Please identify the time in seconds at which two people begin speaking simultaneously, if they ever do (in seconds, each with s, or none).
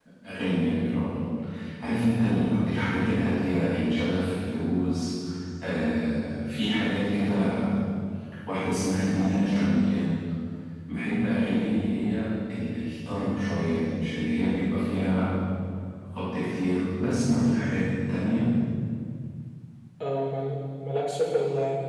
none